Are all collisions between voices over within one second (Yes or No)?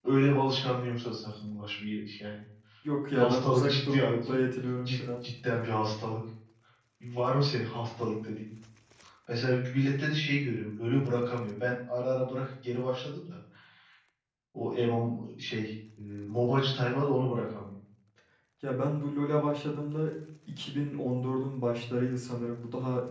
No